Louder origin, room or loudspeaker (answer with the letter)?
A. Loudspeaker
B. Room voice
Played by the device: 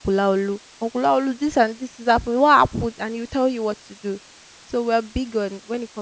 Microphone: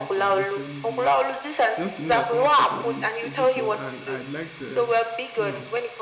A